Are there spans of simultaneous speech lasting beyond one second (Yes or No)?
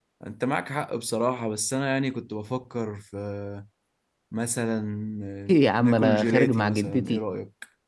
Yes